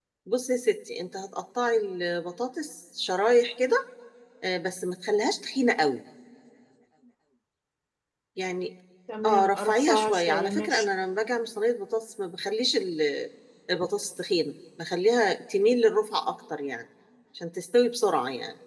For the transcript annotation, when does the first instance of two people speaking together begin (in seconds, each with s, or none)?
9.2 s